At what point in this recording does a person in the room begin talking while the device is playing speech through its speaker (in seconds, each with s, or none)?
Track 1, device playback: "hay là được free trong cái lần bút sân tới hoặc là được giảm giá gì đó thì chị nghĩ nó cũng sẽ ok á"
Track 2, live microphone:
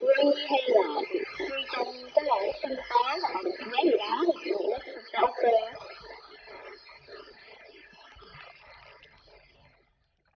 none